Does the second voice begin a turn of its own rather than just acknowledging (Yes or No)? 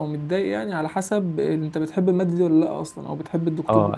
Yes